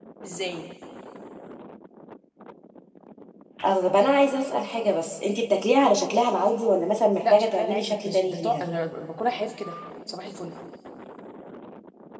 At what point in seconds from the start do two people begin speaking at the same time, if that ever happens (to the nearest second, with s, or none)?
7 s